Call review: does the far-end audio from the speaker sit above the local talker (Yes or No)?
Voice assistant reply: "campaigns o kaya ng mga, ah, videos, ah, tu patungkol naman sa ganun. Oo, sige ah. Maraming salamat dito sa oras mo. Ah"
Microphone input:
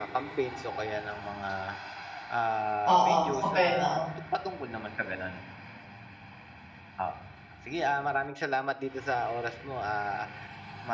No